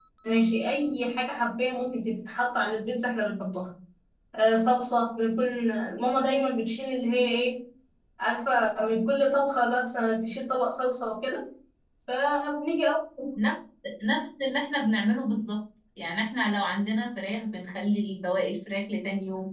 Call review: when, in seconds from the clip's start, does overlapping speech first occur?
none

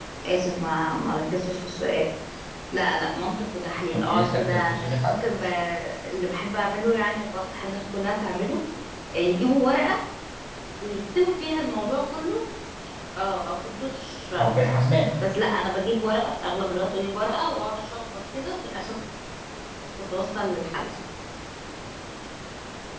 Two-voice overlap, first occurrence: 3.9 s

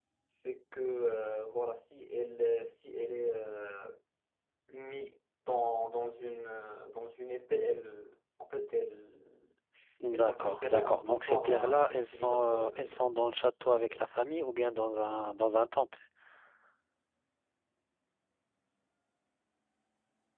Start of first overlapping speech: 10.1 s

